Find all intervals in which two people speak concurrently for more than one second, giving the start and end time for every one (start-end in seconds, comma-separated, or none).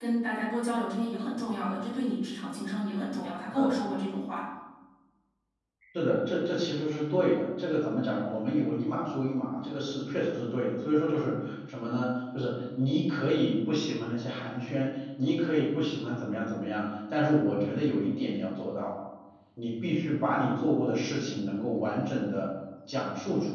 none